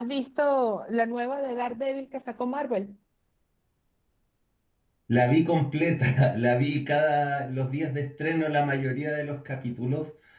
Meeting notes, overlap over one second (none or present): none